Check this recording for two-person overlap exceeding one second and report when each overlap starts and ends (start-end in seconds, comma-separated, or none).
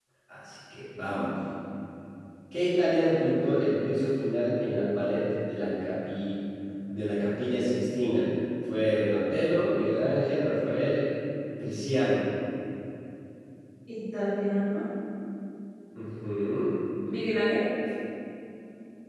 none